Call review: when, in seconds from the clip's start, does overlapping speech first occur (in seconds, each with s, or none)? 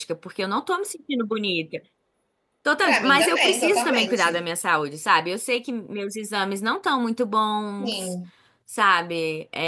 2.8 s